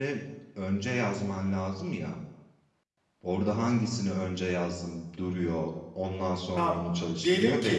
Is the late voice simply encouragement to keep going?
No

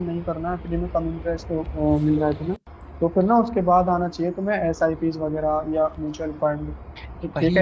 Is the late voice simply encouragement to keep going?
No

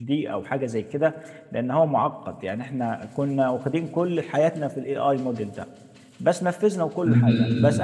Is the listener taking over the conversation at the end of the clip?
No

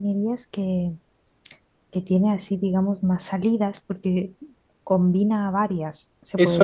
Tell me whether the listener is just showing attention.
No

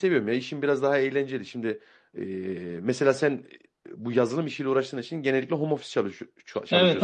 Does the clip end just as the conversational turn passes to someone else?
Yes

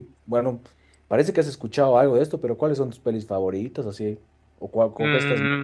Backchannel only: No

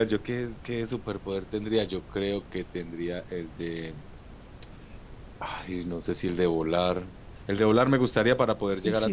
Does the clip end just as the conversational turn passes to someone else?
Yes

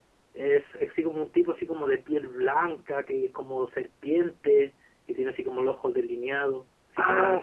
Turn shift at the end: Yes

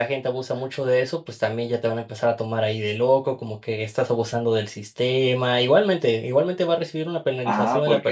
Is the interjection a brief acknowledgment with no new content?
No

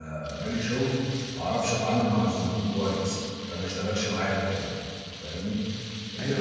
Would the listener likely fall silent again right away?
No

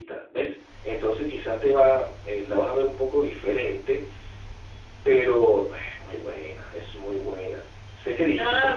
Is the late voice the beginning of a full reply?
No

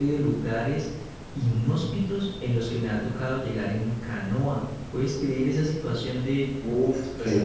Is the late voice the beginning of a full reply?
Yes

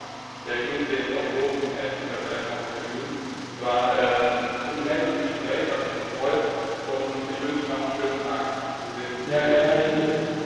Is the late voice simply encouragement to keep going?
No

